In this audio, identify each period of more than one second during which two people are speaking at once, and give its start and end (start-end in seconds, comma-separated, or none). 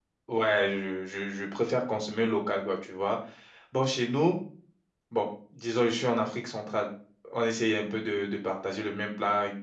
none